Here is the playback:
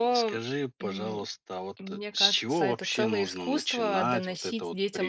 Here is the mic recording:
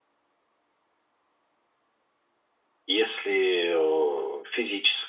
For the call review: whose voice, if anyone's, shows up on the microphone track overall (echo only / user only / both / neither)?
user only